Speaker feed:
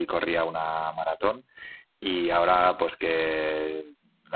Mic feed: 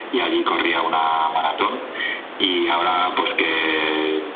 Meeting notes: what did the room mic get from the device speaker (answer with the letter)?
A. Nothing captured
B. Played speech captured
B